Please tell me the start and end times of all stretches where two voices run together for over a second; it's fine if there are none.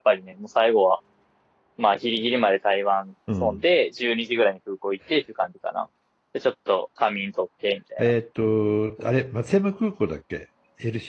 none

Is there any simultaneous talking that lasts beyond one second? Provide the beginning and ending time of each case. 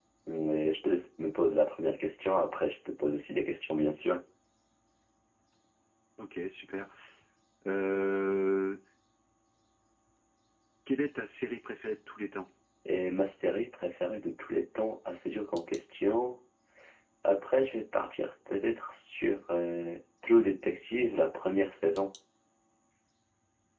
none

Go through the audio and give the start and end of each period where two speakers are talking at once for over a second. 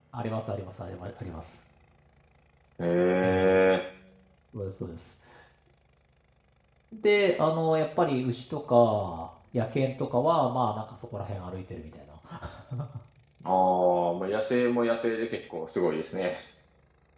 none

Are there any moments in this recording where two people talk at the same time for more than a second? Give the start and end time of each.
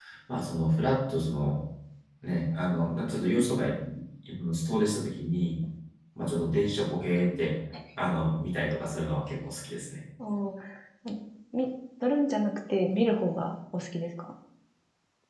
none

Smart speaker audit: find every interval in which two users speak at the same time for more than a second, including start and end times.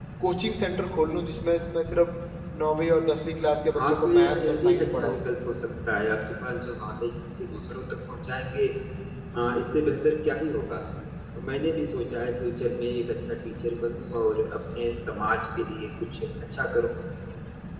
3.8-5.2

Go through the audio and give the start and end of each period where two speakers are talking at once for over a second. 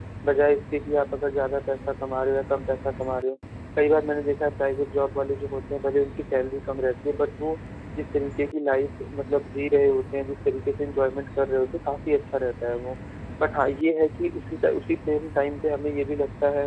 none

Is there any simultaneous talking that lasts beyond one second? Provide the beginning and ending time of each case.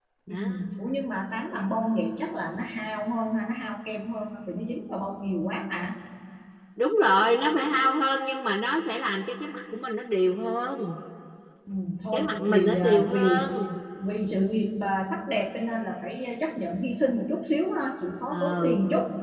12.1-13.5

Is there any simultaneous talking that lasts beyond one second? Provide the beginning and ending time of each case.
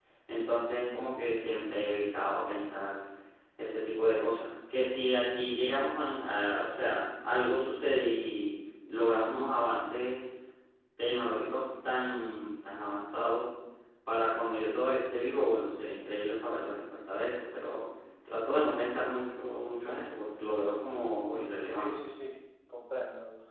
none

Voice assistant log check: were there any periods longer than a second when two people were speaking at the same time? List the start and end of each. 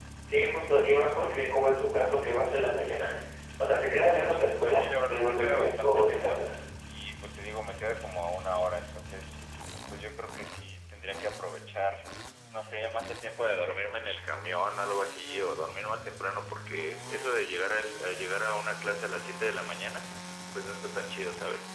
4.6-6.5

